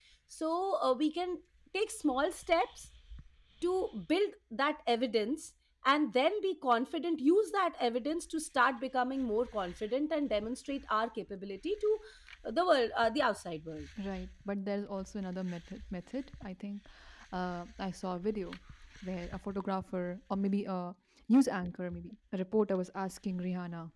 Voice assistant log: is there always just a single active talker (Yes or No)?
Yes